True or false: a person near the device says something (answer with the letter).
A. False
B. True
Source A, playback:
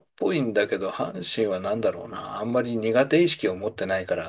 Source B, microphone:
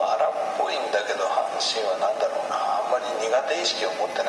A